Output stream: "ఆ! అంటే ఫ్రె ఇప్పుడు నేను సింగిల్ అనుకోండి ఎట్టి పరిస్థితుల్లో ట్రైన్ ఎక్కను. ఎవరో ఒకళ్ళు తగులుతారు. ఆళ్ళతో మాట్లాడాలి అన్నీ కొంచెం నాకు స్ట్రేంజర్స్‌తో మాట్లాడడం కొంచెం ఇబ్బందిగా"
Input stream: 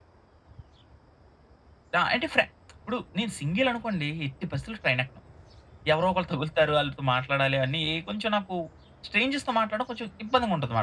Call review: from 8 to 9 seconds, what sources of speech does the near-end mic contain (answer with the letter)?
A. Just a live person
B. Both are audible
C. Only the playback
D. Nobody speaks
C